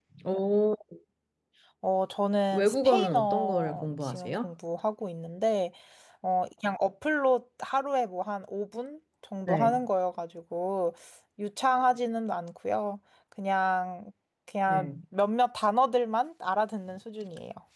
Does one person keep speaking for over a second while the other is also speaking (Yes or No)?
Yes